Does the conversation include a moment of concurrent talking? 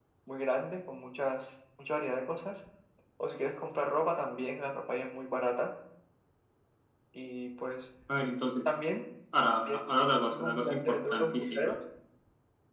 Yes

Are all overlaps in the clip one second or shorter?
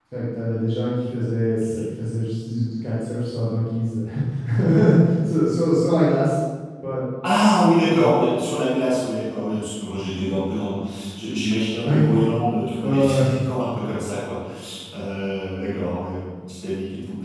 Yes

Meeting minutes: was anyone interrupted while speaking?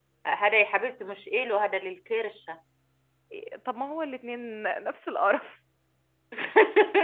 No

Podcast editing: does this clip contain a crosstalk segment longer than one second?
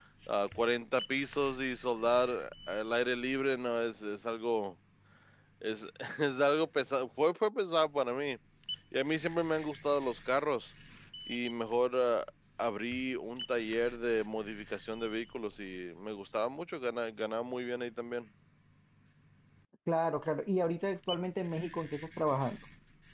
No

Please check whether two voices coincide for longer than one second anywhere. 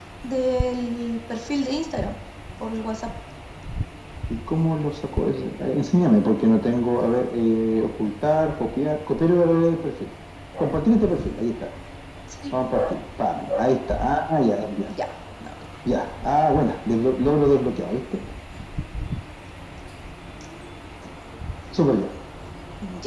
No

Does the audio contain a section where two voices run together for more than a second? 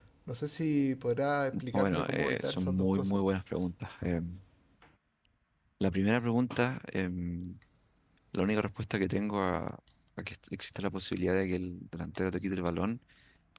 Yes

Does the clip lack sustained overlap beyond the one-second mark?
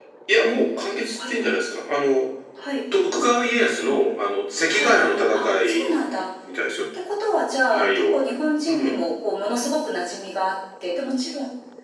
No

